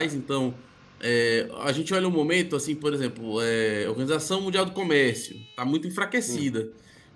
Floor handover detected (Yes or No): No